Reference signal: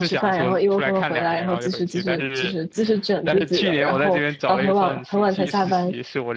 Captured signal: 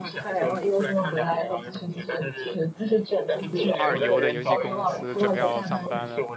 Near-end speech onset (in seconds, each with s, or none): 3.7 s